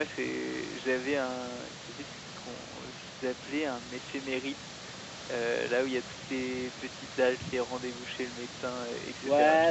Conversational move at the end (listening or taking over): taking over